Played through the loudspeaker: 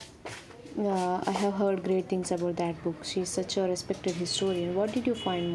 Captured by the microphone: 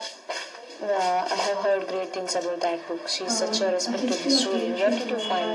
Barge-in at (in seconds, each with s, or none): 3.2 s